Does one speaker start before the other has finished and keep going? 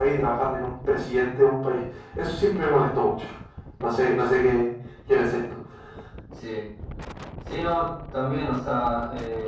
No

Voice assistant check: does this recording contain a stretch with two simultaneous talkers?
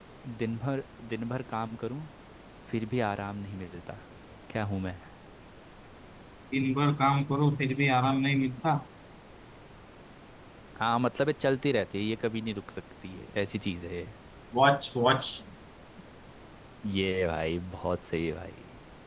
No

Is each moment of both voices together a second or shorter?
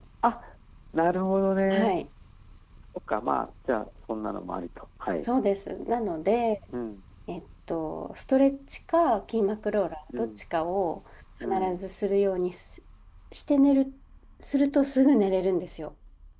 Yes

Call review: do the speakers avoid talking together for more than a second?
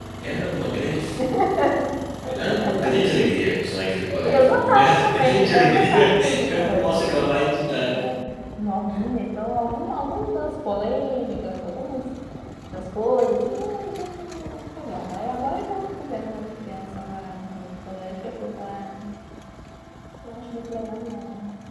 No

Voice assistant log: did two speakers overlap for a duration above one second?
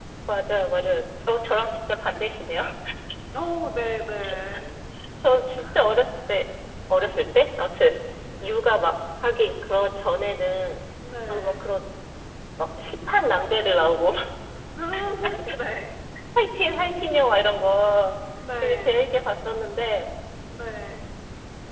No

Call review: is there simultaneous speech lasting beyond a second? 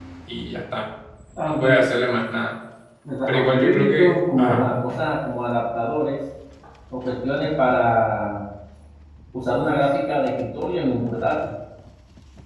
Yes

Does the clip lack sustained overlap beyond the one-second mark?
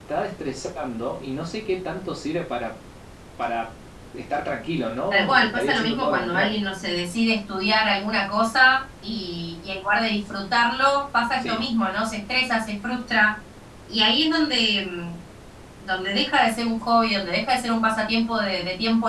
No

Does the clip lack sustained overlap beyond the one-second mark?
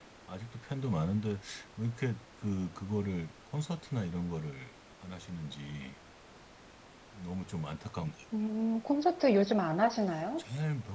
Yes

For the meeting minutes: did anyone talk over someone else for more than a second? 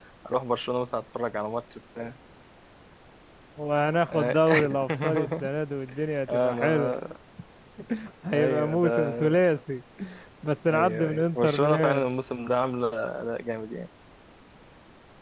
Yes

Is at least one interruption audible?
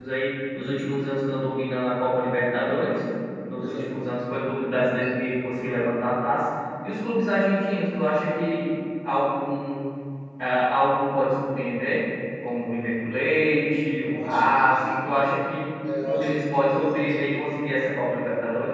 Yes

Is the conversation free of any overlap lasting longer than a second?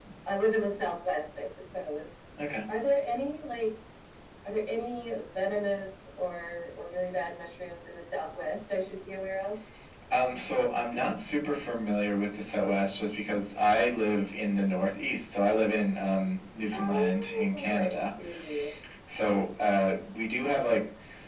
No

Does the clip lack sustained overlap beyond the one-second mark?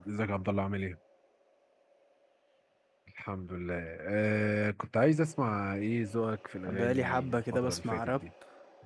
No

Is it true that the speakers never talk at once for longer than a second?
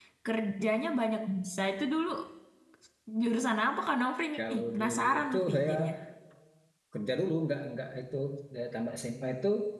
No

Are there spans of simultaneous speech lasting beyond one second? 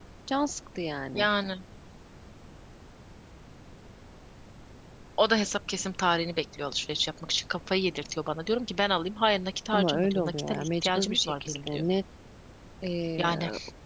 Yes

